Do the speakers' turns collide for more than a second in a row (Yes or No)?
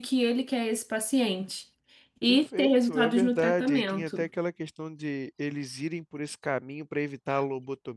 Yes